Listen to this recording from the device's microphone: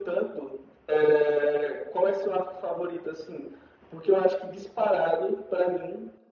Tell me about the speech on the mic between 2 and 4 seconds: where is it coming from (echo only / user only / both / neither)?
echo only